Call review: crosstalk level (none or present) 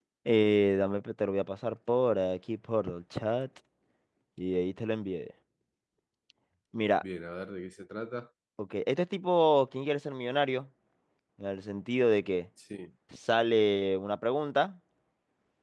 none